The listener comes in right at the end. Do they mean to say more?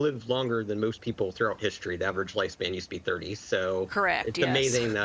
No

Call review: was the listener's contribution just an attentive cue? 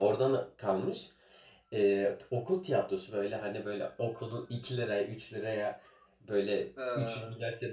Yes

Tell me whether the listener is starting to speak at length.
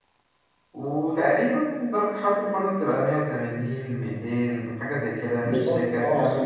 Yes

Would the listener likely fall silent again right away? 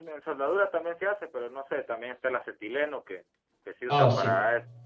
Yes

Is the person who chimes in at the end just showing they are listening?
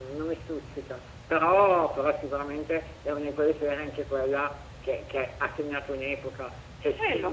Yes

